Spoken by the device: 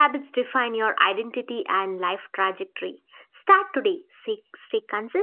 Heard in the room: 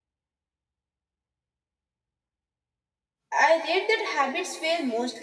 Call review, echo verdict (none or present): none